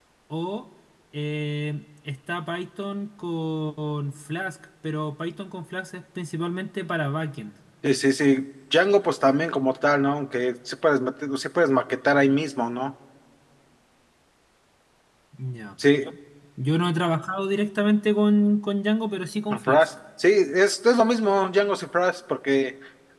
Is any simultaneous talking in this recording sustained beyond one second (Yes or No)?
No